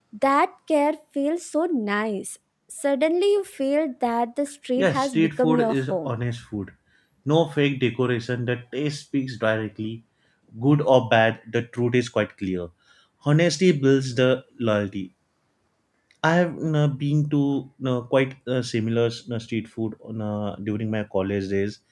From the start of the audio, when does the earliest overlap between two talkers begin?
4.8 s

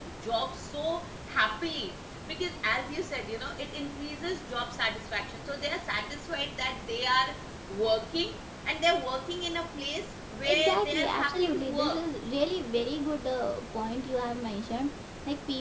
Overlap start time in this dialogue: 10.4 s

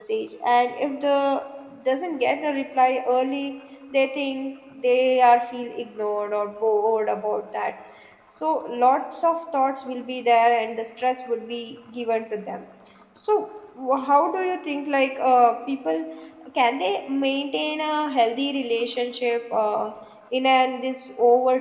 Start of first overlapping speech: none

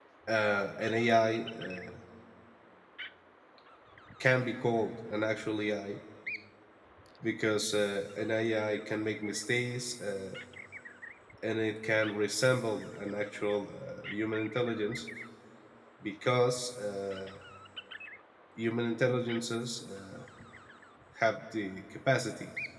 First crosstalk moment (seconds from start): none

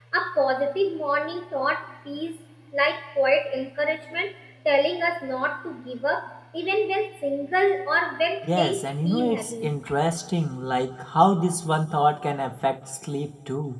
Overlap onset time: 8.4 s

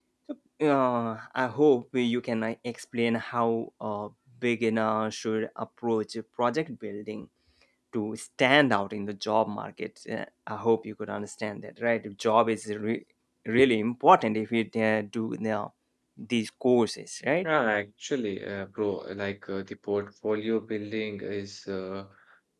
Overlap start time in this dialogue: none

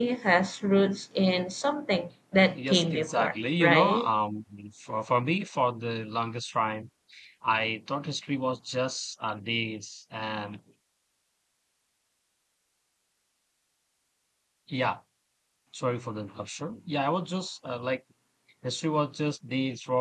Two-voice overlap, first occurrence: 2.5 s

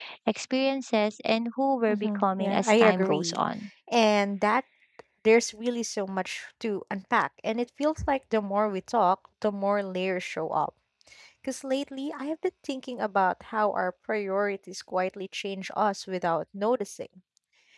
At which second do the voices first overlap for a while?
1.9 s

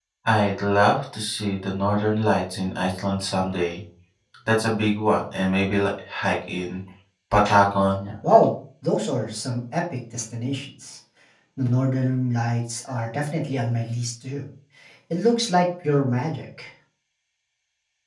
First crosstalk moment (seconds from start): none

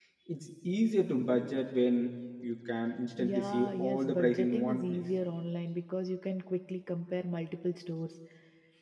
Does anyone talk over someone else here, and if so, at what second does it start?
3.2 s

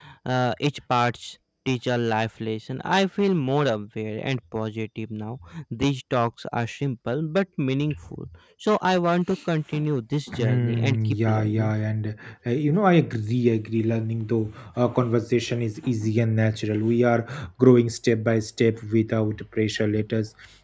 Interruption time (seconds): 10.3 s

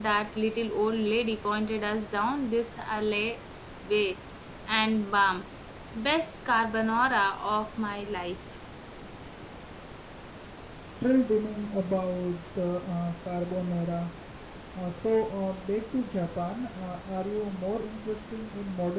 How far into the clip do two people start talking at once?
none

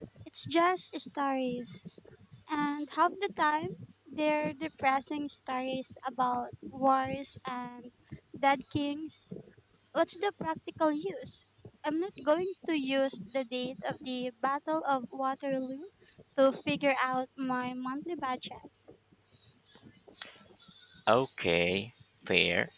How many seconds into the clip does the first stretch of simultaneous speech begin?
none

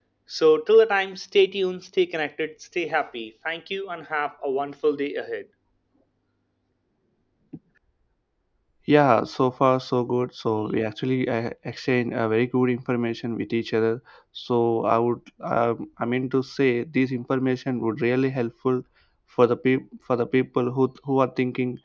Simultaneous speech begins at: none

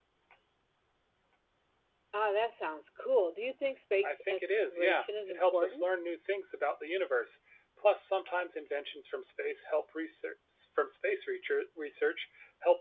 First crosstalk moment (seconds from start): 4.0 s

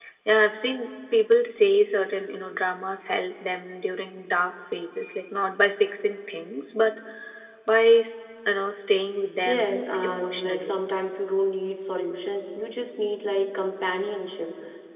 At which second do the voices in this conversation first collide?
9.5 s

